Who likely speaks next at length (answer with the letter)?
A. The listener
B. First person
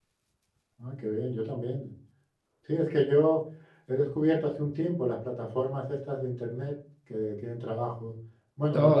B